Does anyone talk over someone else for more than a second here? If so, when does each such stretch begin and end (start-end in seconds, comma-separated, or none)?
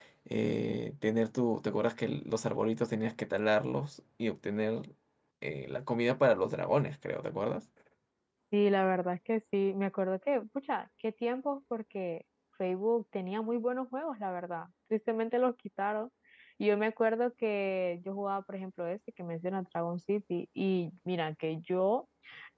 none